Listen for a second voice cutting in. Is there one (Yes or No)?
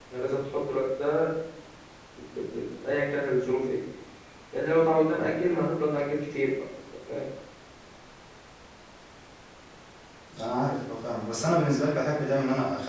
No